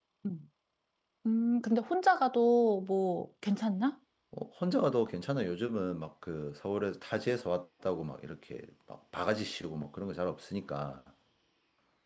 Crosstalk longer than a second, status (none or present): none